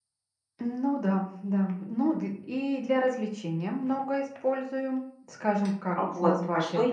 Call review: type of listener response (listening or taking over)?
taking over